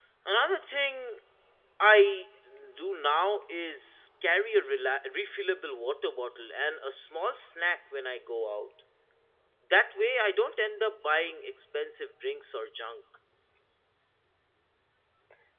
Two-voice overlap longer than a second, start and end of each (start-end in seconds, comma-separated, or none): none